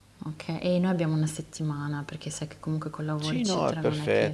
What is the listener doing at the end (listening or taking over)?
taking over